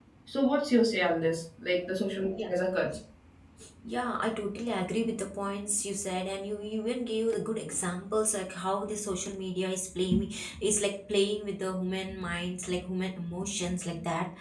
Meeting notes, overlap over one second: none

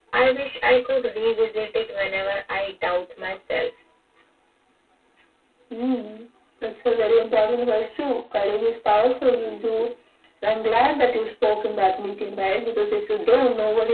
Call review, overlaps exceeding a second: none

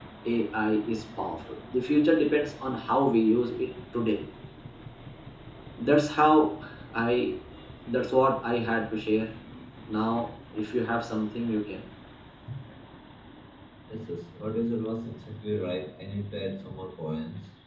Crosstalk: none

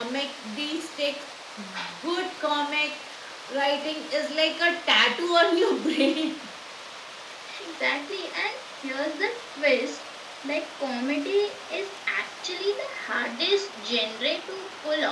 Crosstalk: none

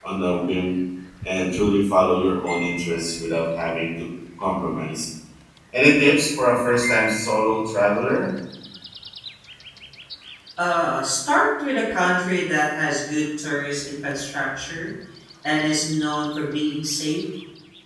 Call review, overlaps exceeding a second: none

